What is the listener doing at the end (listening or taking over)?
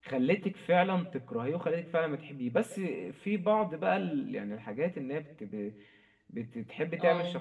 listening